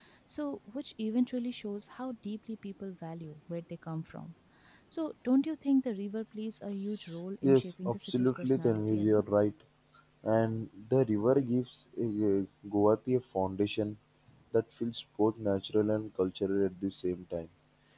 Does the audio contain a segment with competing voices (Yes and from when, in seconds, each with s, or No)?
Yes, from 7.4 s